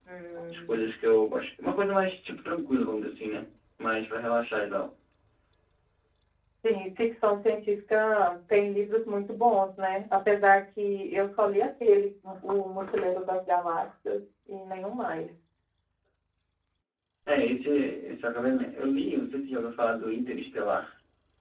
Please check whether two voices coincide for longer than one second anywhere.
No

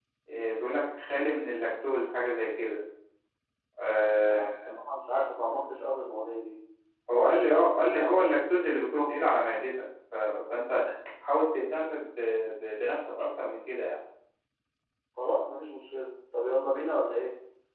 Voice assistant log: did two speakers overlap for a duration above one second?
Yes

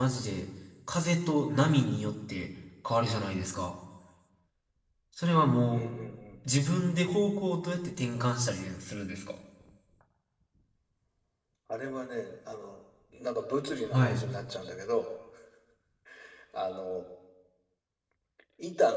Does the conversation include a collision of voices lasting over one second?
No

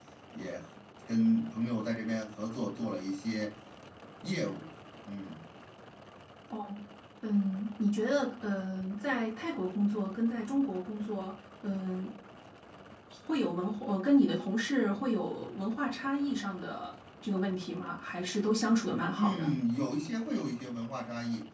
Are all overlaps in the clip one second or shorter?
Yes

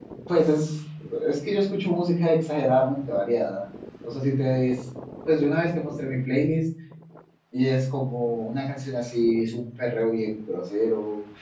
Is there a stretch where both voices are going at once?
No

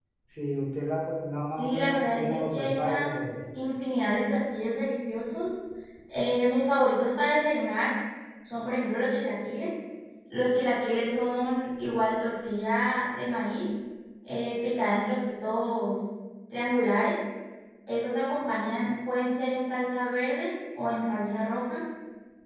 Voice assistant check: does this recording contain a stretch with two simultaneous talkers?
Yes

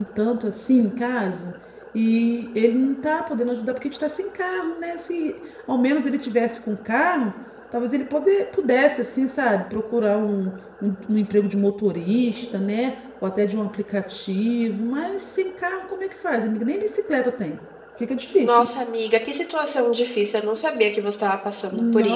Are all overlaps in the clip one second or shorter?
Yes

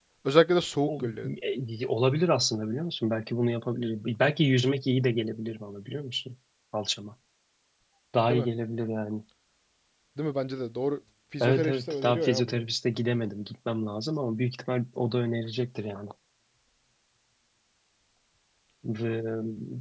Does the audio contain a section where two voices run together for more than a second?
Yes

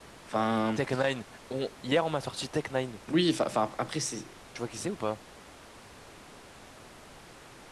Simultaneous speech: No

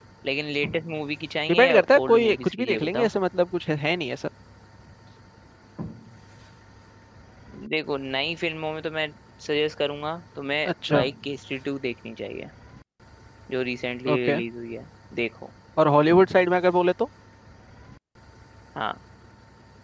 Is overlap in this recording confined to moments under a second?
No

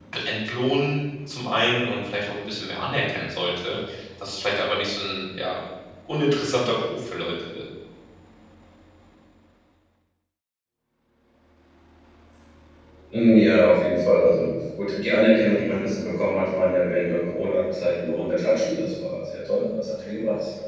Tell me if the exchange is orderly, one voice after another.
Yes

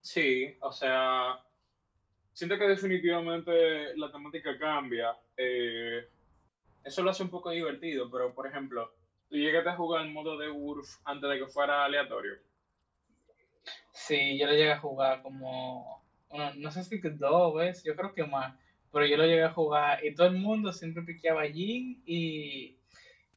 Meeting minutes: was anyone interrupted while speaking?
No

